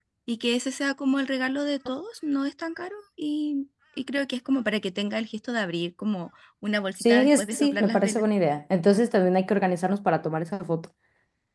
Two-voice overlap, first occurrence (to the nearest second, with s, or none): 7 s